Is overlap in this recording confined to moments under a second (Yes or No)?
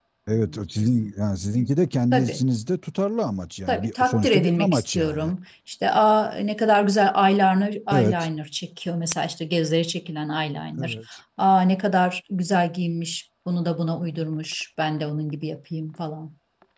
No